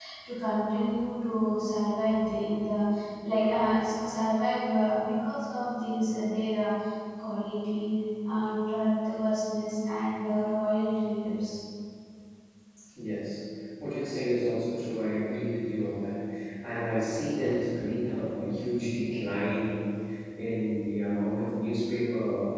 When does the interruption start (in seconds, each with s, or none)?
none